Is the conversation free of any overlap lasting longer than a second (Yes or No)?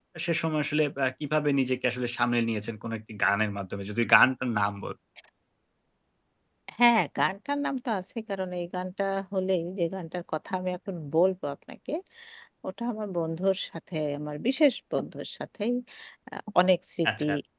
Yes